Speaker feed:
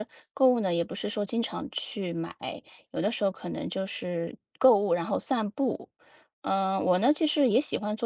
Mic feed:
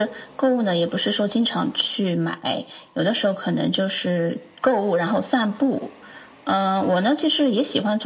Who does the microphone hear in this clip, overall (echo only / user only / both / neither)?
echo only